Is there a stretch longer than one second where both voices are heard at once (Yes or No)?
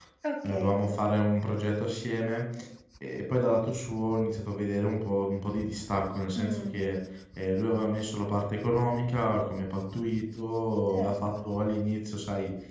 No